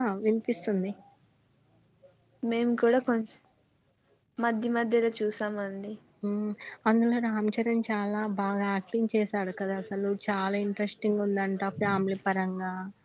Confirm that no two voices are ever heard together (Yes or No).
Yes